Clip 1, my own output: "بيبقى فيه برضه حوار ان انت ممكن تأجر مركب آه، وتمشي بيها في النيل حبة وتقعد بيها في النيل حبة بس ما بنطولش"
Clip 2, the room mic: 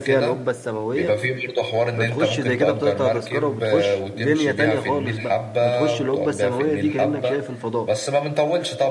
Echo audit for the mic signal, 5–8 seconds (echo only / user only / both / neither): both